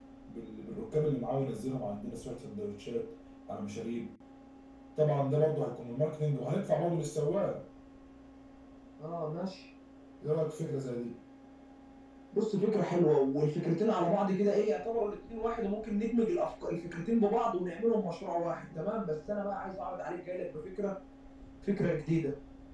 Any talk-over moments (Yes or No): No